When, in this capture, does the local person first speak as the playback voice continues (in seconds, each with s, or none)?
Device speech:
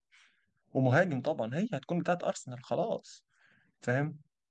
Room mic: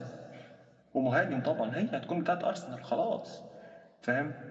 none